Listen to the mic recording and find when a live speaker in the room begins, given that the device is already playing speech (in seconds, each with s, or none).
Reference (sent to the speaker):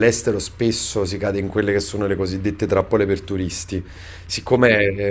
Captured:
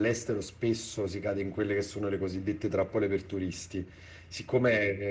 none